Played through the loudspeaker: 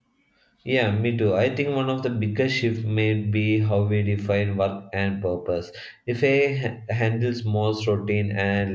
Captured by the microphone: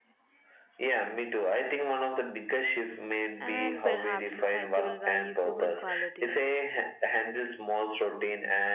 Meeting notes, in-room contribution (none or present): present